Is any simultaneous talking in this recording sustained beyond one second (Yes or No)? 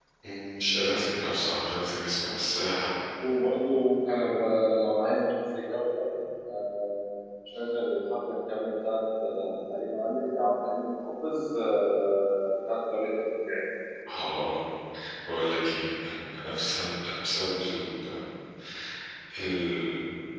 No